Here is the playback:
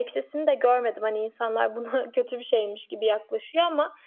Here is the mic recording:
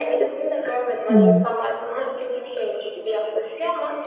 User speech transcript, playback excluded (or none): Hımm.